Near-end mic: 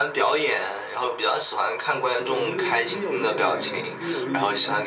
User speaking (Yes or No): Yes